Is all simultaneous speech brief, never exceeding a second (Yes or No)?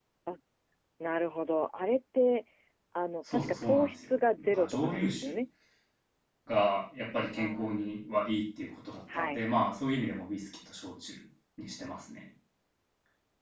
No